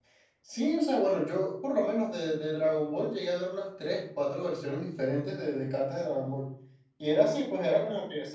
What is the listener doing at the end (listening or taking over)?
listening